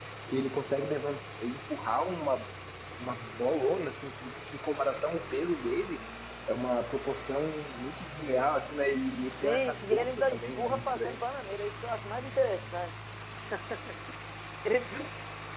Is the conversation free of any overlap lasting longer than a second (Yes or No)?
No